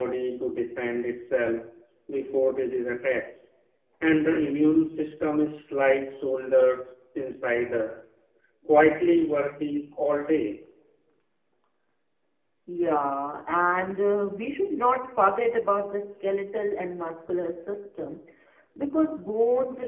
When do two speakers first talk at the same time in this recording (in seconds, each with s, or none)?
none